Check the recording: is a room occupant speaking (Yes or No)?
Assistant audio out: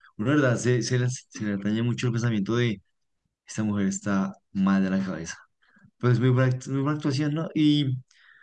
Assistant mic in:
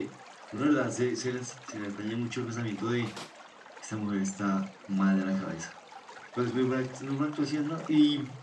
No